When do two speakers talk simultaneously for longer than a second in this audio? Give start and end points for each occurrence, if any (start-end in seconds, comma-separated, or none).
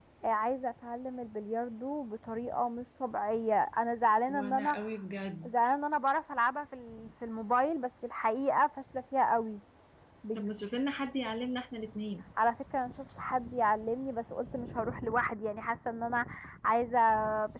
none